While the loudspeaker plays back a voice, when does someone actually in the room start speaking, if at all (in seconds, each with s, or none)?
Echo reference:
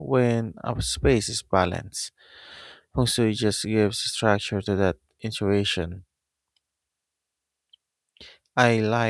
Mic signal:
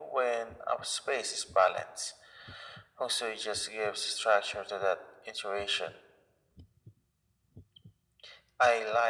none